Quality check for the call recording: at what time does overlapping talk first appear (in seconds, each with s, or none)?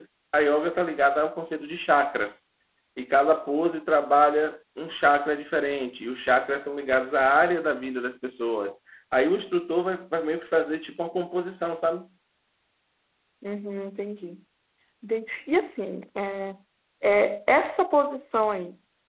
none